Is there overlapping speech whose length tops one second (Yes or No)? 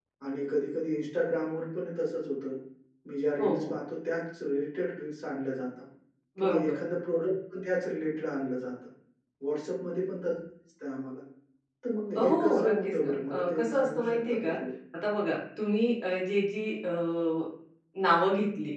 Yes